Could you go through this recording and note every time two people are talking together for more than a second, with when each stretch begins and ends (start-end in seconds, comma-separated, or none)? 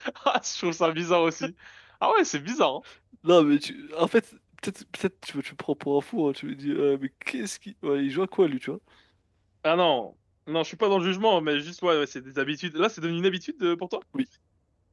none